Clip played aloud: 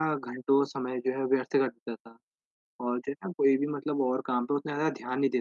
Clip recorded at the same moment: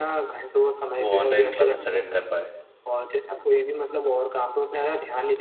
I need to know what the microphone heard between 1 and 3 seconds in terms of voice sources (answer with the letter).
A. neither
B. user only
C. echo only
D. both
D